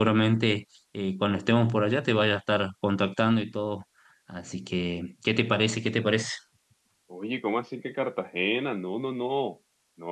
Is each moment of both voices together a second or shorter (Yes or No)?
Yes